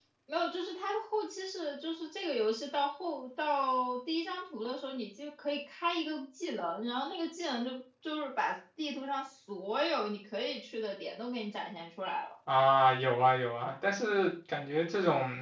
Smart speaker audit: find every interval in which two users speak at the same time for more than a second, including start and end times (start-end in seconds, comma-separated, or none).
none